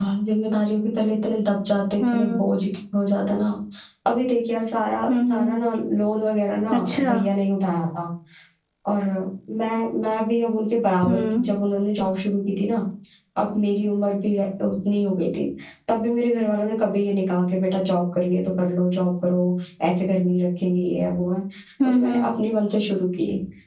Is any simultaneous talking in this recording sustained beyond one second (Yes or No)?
No